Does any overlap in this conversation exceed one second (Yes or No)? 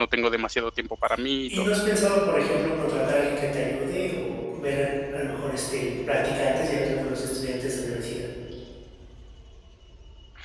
No